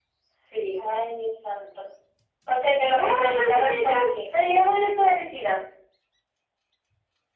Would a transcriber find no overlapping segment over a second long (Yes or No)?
No